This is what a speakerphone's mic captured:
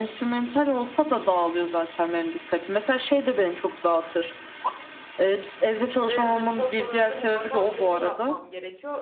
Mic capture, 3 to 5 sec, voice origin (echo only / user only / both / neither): echo only